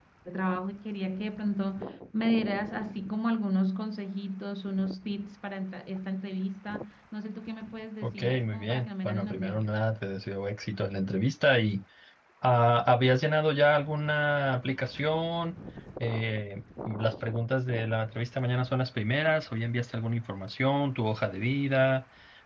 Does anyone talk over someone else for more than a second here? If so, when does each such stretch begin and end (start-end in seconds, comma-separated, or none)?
8.0-9.7